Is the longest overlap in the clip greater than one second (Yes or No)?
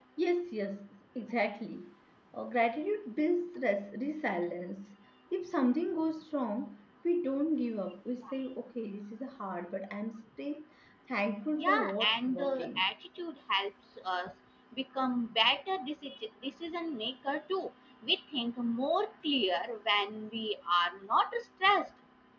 Yes